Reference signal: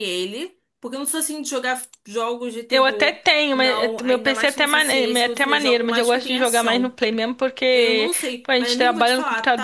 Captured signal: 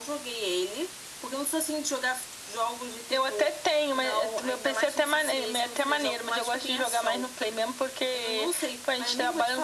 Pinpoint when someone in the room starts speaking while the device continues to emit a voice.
none

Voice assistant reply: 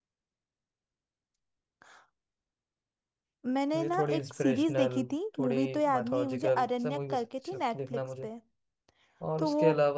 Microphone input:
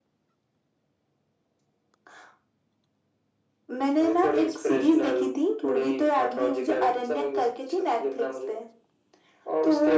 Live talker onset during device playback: none

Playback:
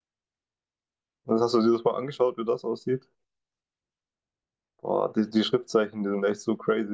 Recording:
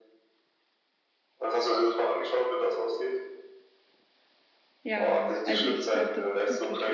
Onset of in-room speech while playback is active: 4.8 s

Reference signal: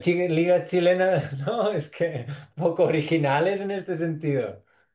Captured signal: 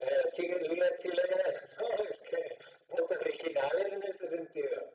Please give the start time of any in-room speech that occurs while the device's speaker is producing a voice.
none

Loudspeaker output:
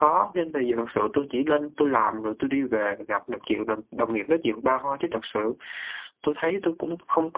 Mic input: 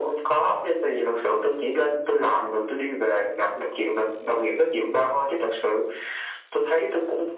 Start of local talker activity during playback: none

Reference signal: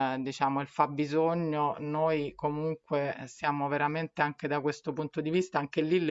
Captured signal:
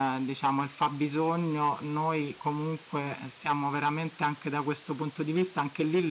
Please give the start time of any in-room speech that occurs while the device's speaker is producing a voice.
none

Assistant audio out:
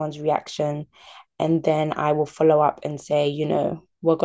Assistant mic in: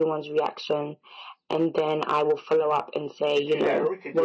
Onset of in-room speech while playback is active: 3.2 s

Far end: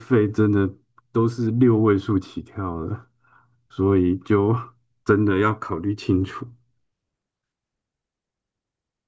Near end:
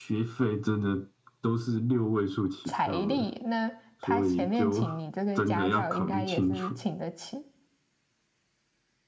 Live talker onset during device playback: 2.6 s

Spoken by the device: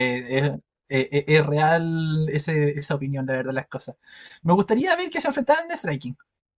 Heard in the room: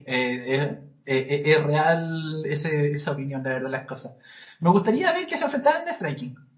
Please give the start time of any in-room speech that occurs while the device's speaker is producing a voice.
none

